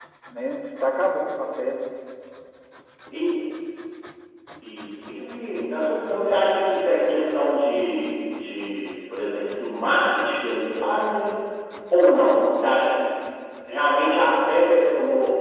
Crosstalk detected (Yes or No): No